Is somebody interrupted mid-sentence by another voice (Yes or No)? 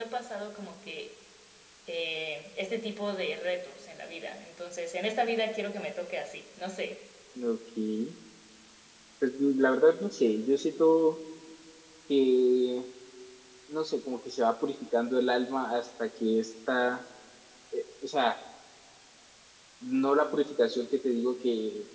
No